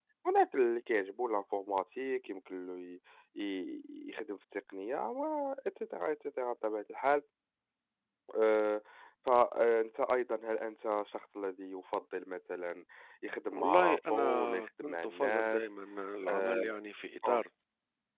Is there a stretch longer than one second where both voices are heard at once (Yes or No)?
Yes